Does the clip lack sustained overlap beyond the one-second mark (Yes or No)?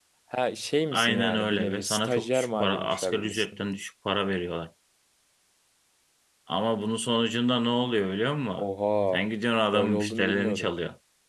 No